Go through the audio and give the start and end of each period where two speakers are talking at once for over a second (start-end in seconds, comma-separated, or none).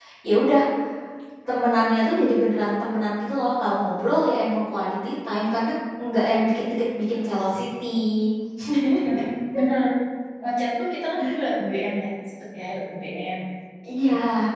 none